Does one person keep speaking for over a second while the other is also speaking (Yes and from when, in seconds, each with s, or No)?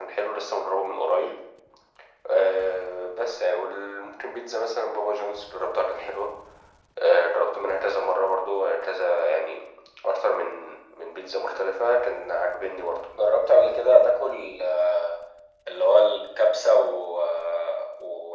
No